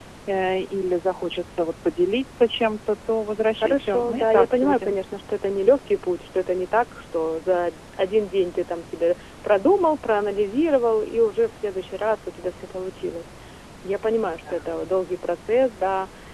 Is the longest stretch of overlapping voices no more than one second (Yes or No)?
No